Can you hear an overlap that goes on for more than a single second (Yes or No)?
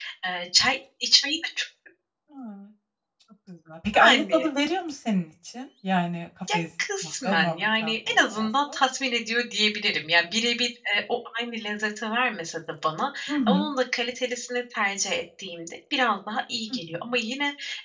Yes